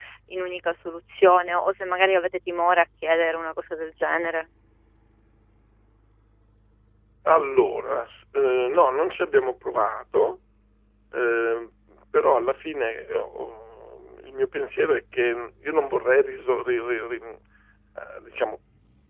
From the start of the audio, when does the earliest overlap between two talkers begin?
none

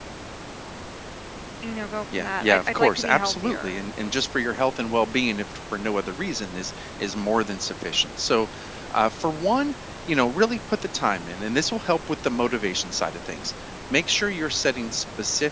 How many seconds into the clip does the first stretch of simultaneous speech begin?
2 s

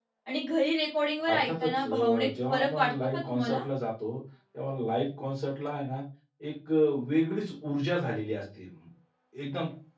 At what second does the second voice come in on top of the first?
1 s

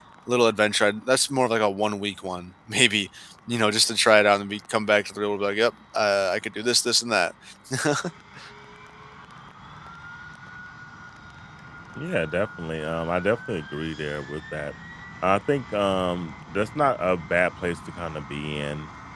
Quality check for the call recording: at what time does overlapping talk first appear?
none

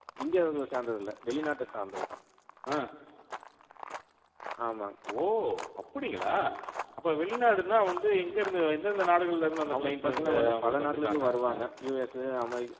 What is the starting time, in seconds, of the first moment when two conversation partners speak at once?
10 s

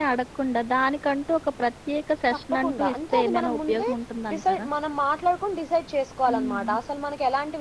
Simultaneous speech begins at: 3 s

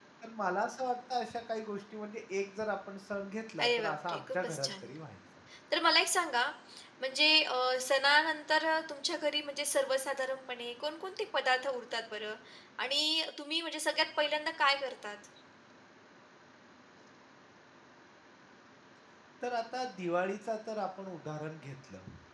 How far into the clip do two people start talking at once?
4 s

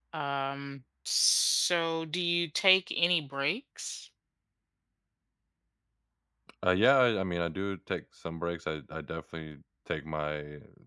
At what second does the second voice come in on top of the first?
none

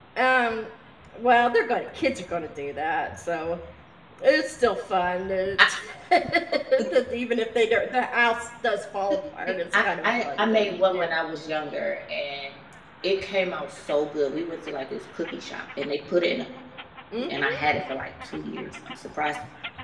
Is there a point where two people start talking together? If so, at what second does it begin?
9 s

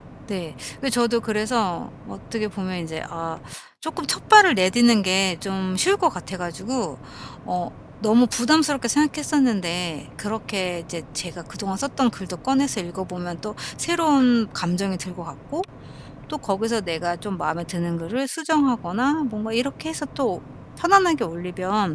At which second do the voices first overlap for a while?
none

